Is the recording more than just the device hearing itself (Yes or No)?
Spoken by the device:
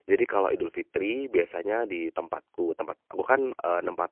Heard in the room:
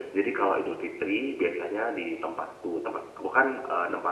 No